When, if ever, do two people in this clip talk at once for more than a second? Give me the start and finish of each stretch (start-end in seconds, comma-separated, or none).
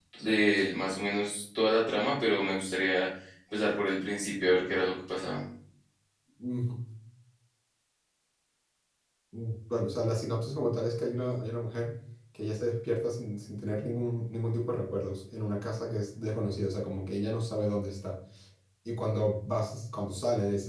none